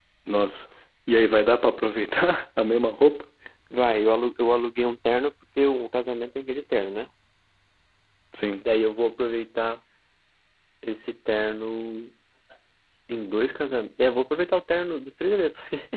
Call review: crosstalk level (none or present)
none